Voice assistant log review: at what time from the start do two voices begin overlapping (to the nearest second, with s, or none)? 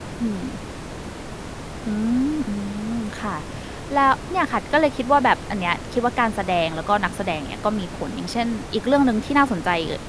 none